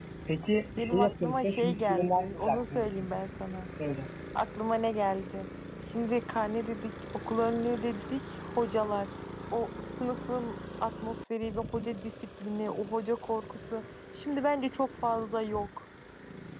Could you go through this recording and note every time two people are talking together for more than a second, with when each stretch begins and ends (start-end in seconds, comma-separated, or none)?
0.8-3.1